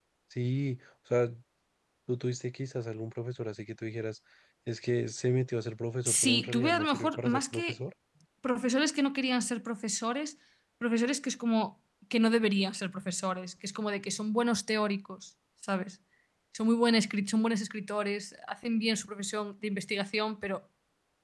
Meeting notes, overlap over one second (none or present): present